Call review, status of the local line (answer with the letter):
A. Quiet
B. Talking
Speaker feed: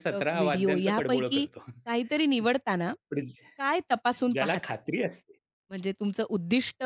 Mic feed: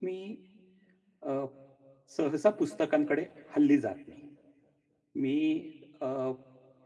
B